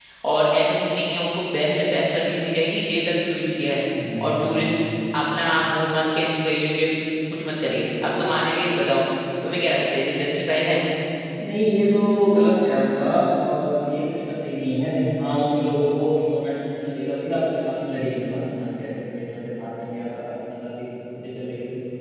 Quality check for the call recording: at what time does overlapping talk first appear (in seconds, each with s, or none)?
none